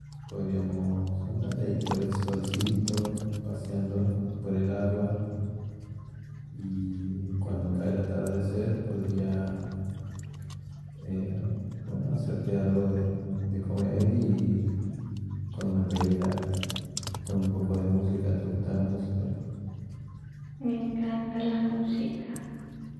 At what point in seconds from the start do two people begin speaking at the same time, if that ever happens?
none

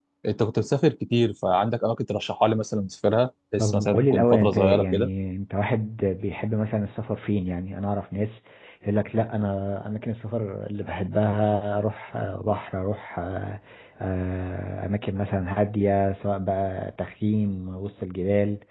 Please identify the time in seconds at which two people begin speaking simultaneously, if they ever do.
3.6 s

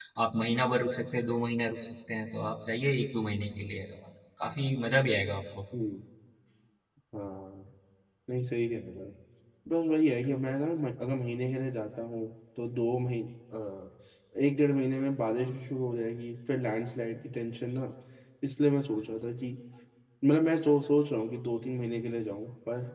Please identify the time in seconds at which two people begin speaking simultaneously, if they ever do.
none

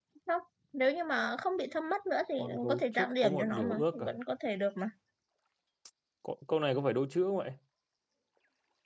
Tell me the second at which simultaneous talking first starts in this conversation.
2.4 s

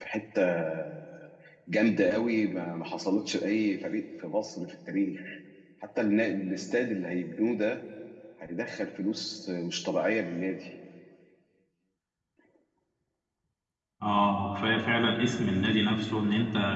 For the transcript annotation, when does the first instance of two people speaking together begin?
none

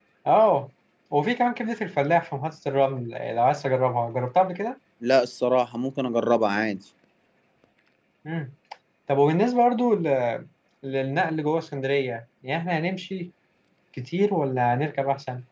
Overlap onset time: none

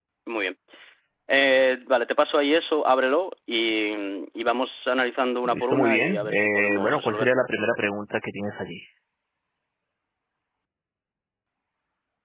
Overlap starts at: 5.4 s

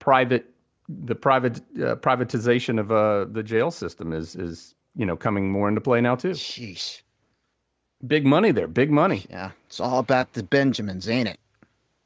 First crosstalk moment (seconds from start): none

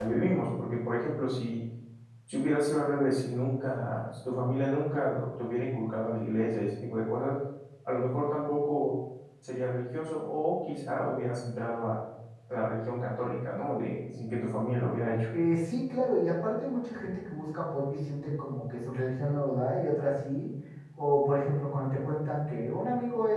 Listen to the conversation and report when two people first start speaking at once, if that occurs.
none

